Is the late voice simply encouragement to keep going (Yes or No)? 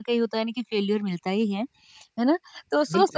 Yes